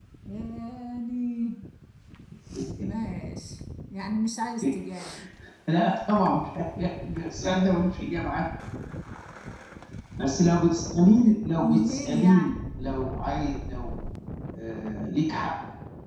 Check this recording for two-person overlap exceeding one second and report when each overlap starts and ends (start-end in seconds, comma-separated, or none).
11.2-12.5